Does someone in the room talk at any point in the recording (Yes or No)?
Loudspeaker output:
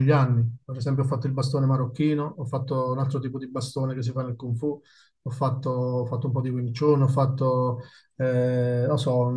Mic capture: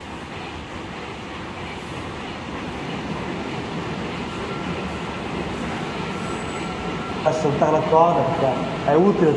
Yes